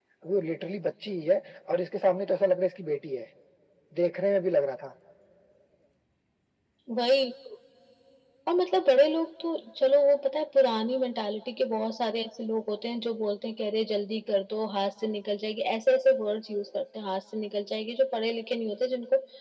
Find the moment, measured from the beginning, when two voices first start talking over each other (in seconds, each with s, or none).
none